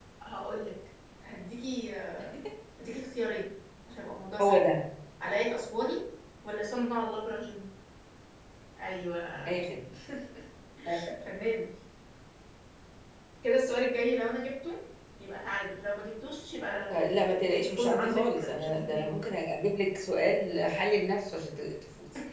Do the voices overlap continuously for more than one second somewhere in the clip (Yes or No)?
Yes